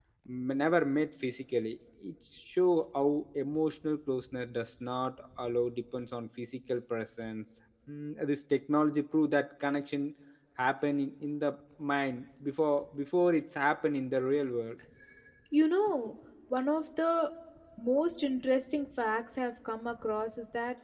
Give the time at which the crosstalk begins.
none

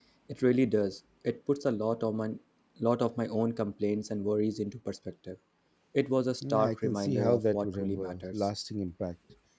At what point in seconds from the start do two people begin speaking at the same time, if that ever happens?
6 s

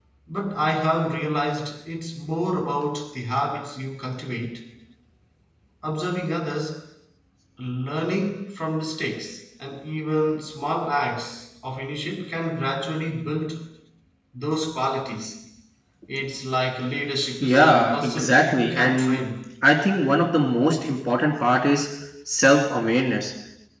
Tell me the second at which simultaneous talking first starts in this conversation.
17 s

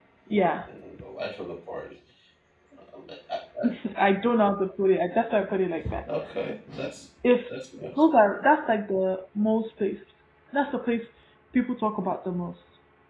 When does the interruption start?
none

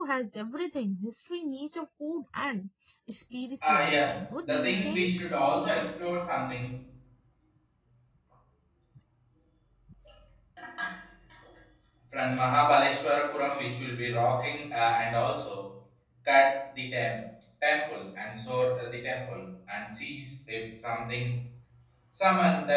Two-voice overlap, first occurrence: 4 s

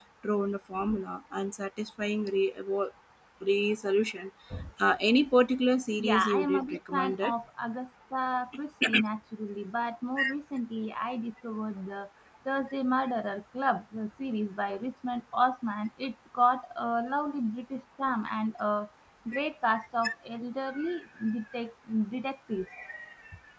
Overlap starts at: 6 s

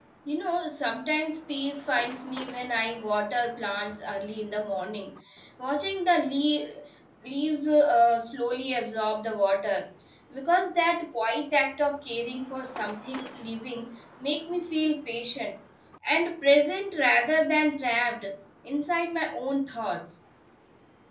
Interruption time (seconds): none

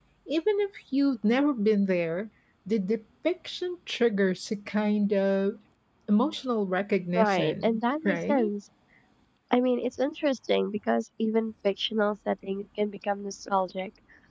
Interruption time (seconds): 7 s

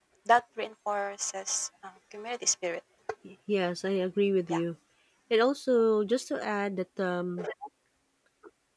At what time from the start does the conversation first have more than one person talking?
none

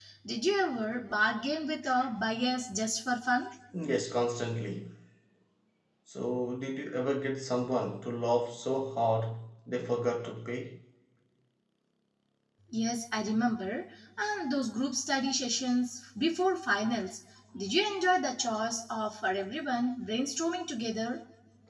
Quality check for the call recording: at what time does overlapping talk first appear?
none

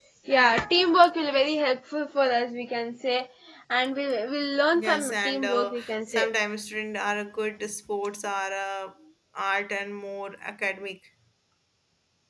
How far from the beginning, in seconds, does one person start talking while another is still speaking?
5 s

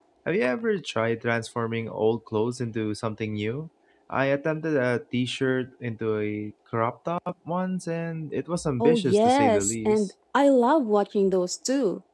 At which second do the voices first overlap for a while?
9 s

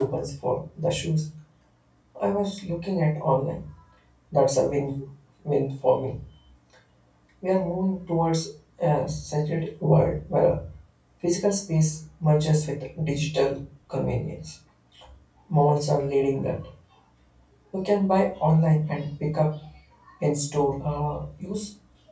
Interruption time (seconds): none

